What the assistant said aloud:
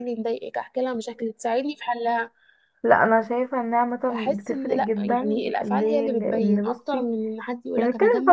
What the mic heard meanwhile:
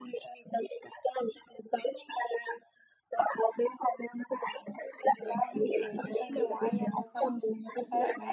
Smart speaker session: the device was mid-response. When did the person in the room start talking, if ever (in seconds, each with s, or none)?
5.2 s